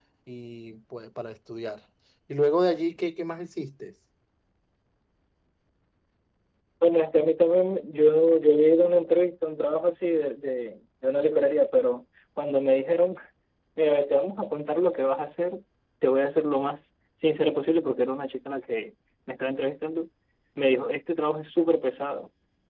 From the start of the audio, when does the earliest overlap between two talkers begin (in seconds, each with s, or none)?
none